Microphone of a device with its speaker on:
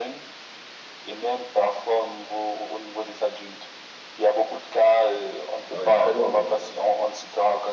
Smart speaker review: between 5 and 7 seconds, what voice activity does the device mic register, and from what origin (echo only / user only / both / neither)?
both